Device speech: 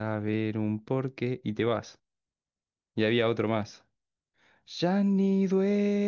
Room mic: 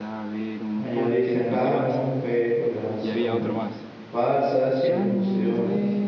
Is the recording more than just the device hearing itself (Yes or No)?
Yes